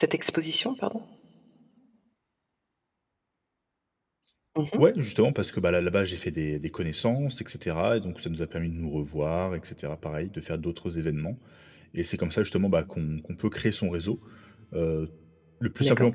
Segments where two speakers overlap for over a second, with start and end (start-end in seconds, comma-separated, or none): none